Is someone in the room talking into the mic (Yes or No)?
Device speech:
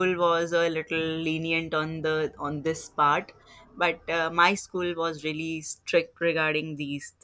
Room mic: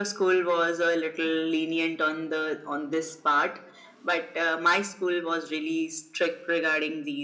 No